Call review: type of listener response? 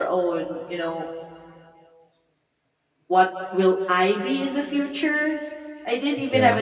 listening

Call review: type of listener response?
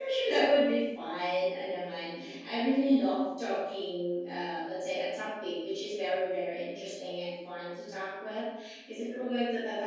listening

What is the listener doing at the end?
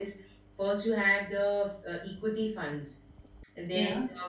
listening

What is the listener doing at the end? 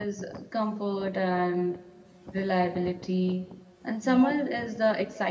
listening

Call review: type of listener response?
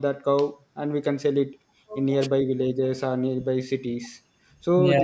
listening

